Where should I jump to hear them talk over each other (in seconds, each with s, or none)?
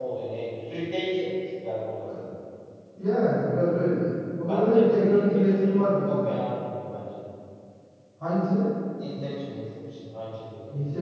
4.5 s